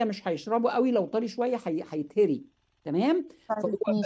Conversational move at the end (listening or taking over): listening